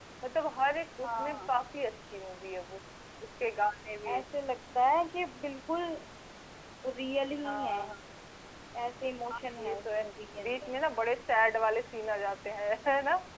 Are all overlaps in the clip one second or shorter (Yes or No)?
Yes